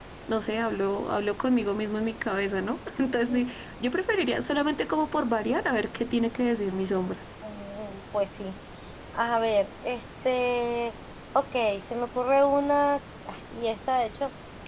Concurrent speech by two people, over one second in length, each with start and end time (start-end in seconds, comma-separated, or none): none